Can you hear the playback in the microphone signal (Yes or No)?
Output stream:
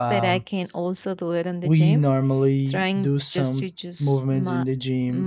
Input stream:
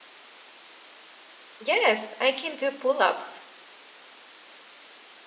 No